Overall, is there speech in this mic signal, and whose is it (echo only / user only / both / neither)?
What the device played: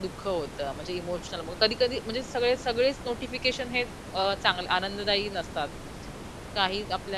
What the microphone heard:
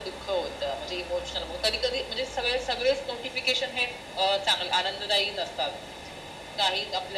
echo only